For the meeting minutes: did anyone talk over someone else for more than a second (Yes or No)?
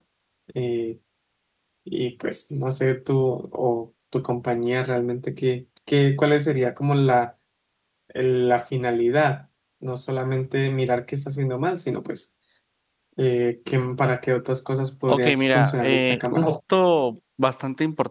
Yes